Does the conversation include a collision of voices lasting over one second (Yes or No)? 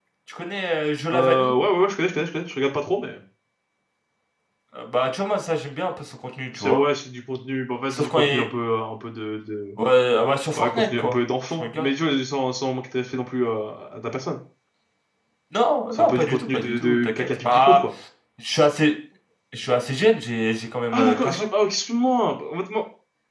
Yes